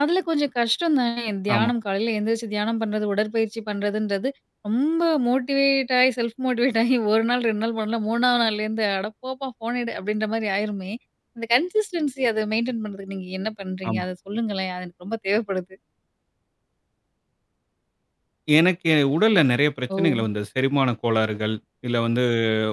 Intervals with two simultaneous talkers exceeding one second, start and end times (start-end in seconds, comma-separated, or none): none